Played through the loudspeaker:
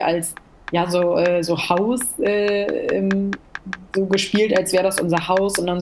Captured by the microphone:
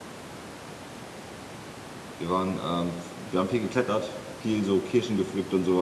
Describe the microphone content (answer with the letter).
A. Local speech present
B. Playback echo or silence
A